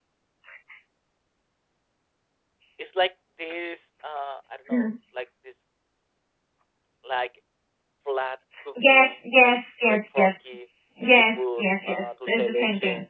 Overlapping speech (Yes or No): Yes